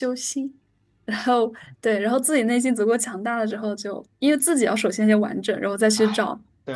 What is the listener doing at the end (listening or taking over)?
taking over